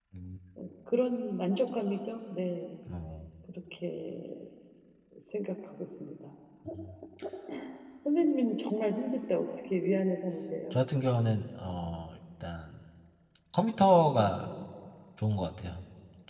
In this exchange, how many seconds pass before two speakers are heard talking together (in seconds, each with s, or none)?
none